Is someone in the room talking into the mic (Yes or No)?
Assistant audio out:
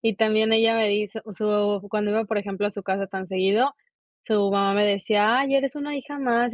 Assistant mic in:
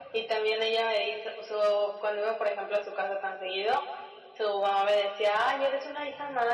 No